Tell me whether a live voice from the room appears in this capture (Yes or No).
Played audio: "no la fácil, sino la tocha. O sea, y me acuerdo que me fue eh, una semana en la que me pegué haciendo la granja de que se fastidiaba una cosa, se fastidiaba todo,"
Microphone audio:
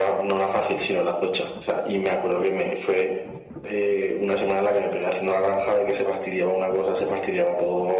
No